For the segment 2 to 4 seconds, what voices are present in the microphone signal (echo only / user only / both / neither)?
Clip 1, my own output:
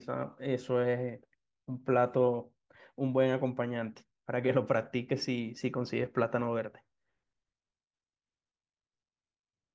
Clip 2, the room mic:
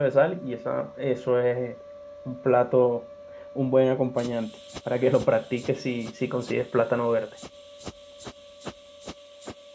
echo only